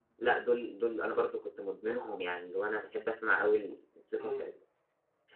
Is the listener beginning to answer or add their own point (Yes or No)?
No